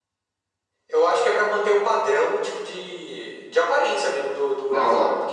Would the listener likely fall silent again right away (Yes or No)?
No